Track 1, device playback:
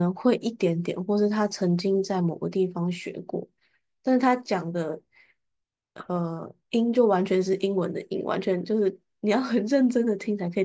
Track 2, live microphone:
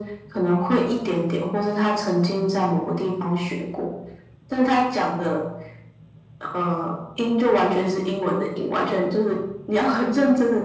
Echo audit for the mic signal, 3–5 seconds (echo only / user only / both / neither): echo only